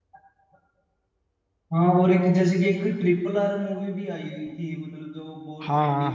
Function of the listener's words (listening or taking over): taking over